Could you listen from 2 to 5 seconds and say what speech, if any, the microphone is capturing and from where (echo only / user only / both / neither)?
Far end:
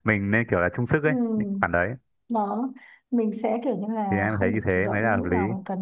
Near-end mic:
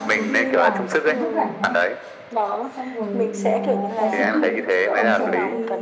both